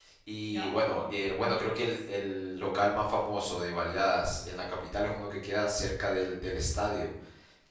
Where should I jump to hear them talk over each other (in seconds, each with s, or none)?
0.6 s